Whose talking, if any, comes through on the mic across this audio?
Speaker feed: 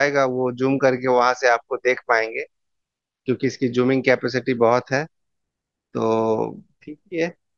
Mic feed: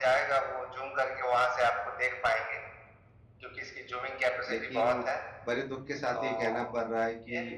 both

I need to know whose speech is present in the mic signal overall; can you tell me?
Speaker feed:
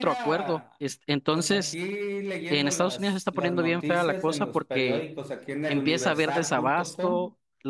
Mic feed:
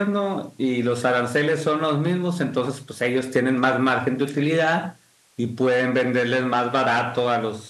user only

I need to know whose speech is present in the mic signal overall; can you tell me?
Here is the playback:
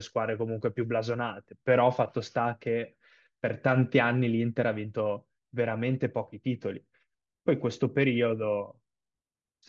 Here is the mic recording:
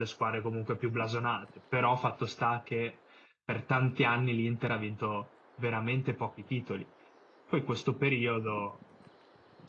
echo only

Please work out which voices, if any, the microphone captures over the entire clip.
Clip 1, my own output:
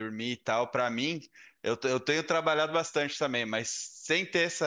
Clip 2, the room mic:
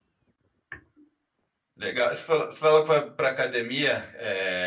user only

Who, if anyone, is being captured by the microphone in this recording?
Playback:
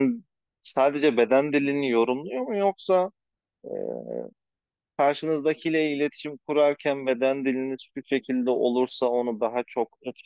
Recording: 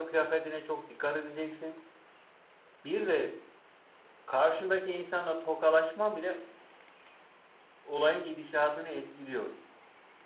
user only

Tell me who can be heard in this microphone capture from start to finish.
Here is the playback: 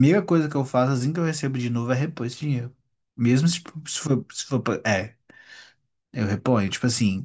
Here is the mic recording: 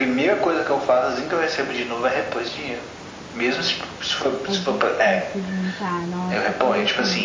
both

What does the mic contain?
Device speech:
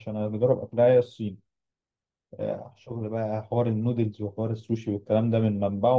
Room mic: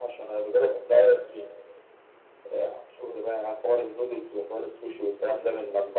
both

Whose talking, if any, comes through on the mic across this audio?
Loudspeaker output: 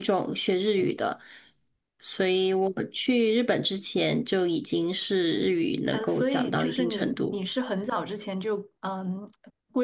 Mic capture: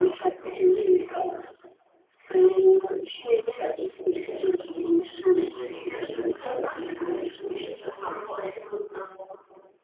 both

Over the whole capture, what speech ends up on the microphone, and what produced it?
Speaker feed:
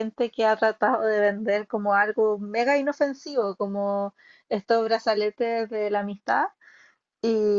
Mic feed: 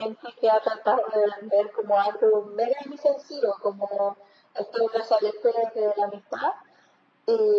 echo only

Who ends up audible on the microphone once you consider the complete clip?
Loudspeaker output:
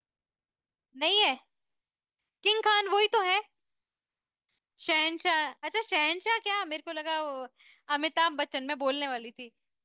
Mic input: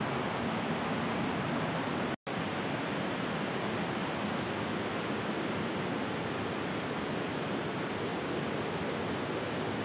neither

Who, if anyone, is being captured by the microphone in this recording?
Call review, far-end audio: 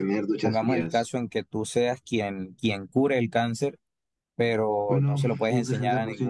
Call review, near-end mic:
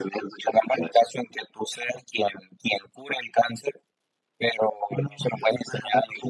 echo only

